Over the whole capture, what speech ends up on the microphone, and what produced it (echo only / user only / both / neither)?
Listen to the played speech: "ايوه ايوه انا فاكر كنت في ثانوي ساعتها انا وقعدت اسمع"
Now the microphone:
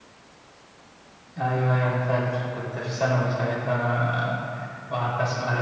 echo only